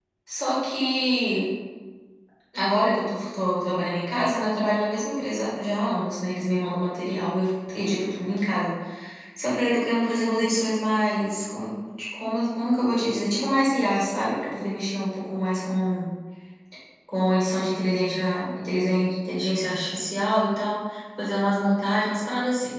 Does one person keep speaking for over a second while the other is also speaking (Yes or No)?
No